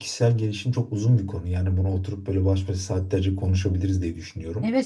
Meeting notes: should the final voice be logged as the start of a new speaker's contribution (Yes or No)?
Yes